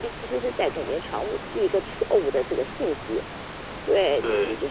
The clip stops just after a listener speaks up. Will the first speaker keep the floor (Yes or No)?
Yes